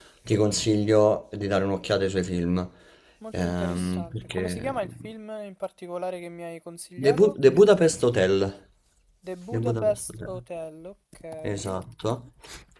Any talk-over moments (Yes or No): Yes